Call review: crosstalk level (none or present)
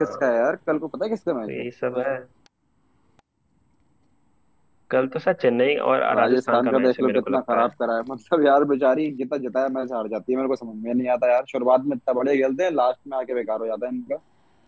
present